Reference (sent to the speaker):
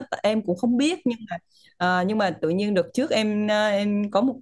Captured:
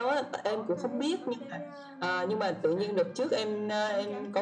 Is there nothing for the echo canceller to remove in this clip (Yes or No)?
No